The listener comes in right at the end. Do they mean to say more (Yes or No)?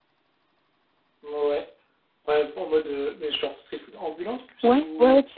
Yes